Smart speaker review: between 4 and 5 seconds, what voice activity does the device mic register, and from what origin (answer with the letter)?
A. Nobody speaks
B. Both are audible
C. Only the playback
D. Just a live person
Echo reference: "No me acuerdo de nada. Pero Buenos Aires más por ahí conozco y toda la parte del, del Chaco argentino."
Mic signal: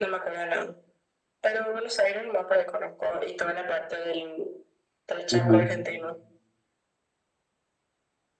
C